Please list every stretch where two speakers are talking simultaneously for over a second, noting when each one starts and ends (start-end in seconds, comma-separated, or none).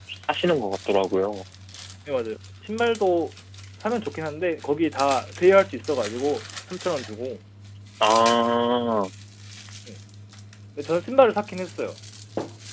none